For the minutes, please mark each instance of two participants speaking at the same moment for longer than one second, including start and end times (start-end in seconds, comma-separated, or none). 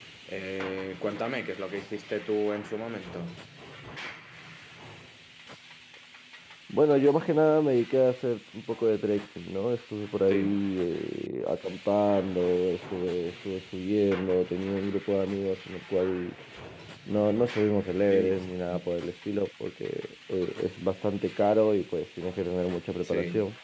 none